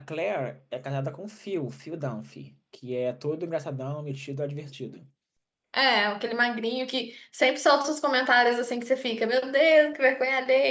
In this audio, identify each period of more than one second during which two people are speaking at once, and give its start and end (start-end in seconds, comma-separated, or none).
none